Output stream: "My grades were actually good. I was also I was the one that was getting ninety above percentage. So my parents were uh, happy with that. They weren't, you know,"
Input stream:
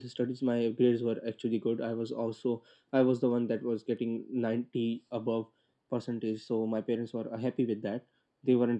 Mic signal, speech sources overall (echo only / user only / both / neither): echo only